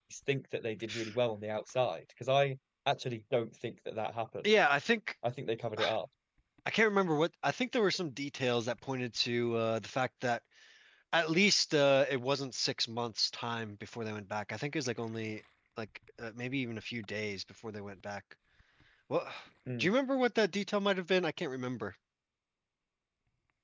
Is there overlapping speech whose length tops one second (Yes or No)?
No